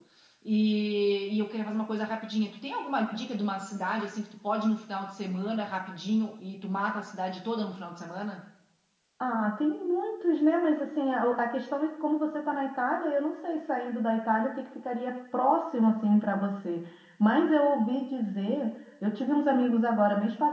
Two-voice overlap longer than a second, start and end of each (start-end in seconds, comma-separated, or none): none